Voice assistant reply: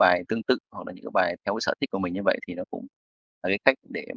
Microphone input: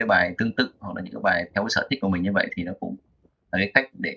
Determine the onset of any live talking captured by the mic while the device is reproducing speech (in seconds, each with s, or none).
none